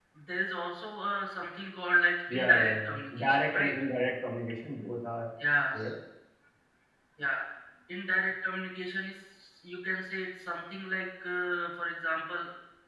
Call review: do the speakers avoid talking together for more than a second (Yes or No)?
No